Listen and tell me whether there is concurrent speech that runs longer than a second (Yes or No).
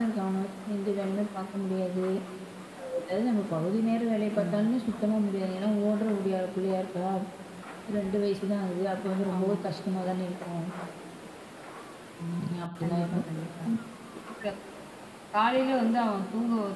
No